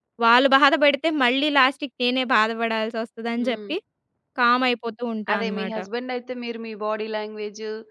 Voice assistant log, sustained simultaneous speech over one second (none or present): none